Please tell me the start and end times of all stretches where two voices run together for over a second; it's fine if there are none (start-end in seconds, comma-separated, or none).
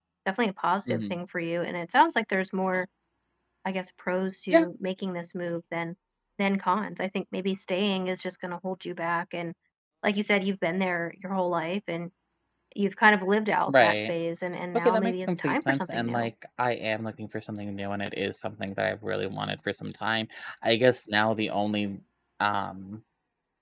14.7-16.3